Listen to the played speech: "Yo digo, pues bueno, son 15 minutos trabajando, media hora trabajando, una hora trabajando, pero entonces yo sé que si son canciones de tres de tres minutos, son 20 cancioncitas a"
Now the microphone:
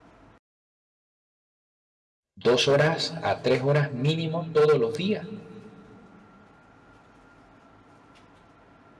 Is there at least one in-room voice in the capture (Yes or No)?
Yes